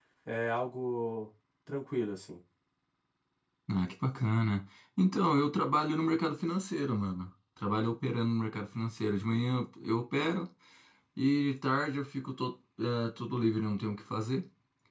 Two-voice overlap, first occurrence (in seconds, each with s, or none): none